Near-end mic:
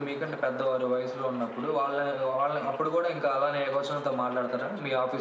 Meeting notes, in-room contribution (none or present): none